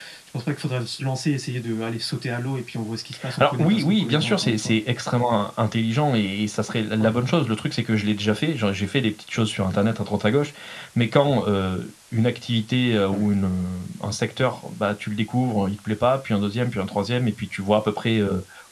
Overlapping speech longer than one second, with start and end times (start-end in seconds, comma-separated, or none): 3.4-4.7